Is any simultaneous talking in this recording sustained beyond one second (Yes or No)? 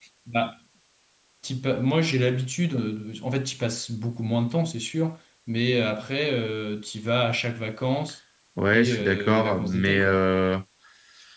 Yes